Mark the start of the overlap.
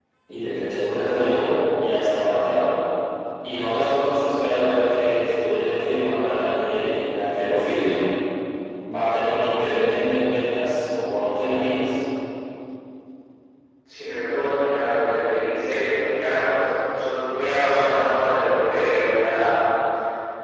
none

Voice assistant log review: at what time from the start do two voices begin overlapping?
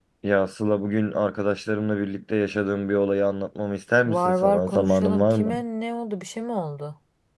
4.0 s

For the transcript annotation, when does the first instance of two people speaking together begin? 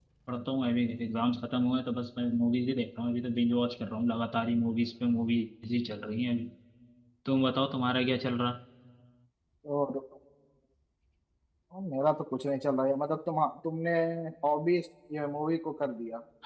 none

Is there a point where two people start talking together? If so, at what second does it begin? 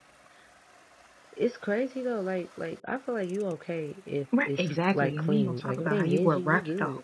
4.3 s

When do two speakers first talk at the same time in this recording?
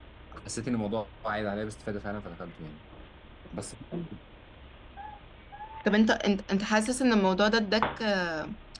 none

